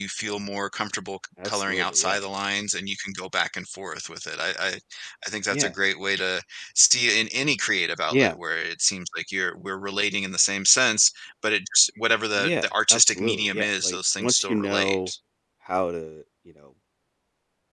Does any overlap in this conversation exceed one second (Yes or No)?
Yes